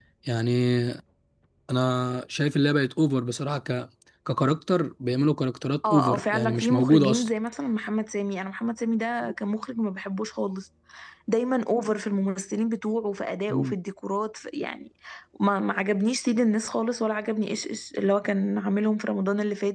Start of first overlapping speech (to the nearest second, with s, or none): 6 s